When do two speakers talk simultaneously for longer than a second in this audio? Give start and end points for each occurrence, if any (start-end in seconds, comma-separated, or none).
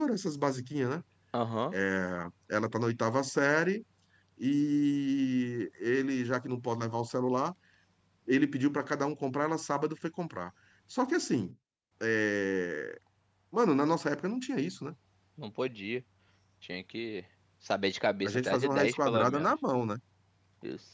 18.2-19.5